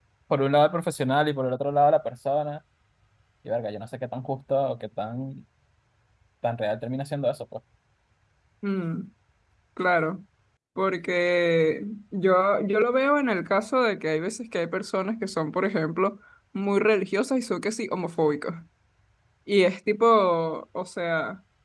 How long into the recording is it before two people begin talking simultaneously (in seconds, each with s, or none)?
none